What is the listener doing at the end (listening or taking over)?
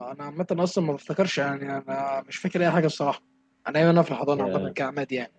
listening